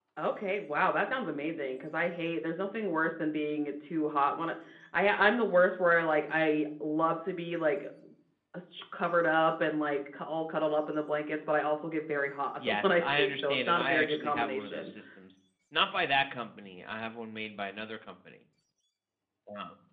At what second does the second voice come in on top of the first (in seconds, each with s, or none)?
12.6 s